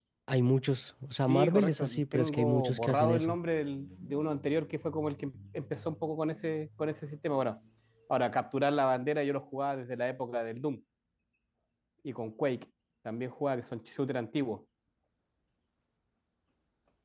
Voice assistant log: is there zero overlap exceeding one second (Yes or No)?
No